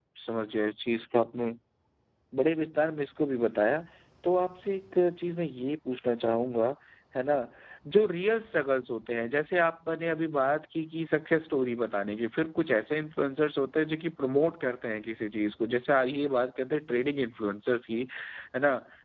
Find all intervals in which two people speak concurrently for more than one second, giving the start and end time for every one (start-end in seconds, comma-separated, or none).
none